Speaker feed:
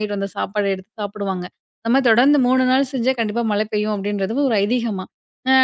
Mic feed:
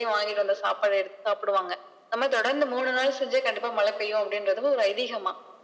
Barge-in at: none

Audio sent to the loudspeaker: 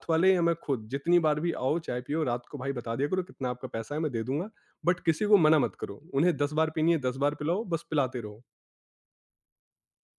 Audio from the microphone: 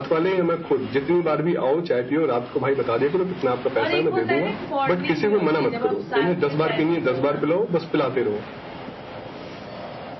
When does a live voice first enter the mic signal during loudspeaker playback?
3.8 s

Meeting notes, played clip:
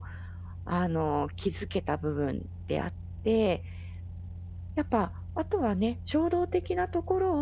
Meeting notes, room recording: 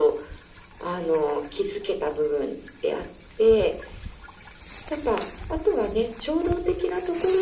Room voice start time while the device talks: none

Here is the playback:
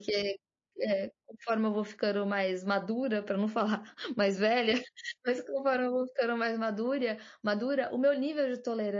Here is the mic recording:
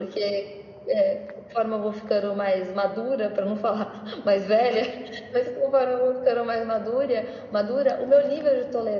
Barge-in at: none

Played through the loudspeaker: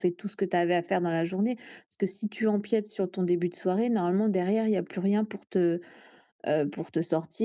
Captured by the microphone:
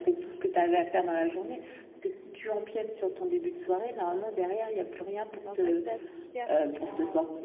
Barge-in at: 5.3 s

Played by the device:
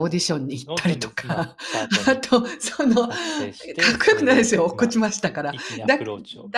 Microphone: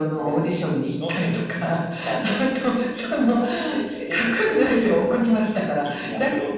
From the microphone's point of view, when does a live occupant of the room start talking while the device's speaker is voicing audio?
none

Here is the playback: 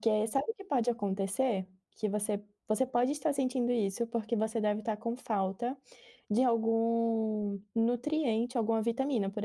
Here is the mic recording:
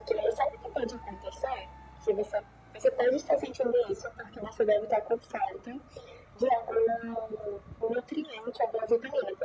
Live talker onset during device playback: none

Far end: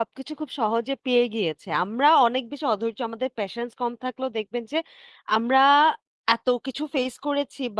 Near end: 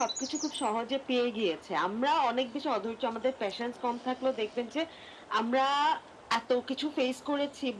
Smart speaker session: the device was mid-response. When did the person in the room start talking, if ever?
none

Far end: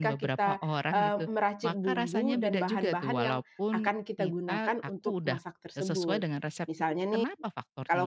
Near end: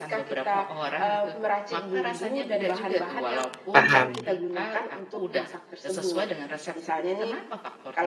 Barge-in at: 3.7 s

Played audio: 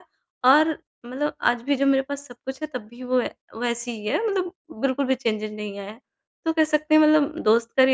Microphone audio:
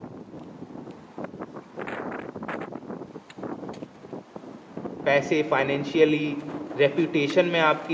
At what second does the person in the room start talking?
5.0 s

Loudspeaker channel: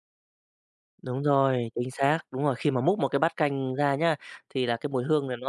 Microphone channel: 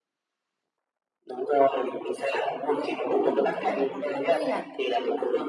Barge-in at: 3.1 s

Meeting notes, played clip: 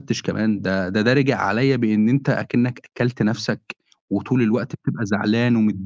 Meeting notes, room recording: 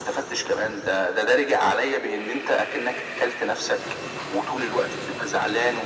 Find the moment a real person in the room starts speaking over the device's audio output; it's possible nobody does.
none

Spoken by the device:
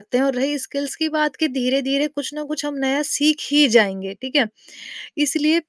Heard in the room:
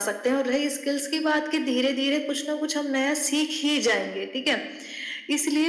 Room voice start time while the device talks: none

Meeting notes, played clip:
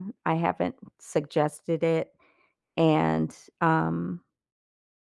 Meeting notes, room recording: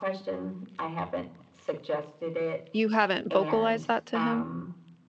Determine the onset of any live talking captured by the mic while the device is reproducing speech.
2.7 s

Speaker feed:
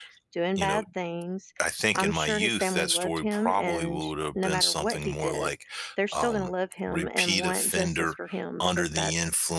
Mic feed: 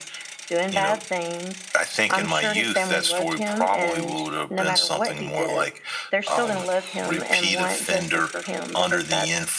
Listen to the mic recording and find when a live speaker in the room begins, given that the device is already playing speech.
none

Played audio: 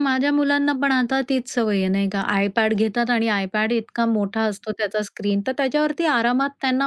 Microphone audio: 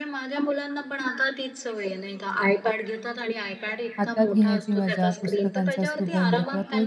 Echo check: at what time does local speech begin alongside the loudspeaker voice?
4.0 s

